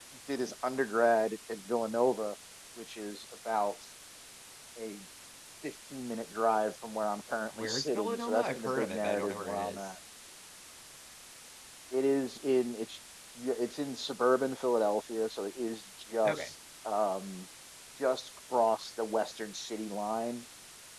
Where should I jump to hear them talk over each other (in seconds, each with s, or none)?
7.6 s